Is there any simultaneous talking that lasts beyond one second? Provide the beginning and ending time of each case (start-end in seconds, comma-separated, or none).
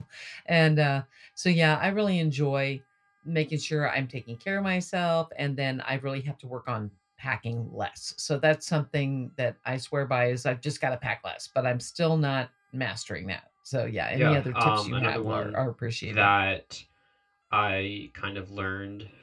14.1-15.6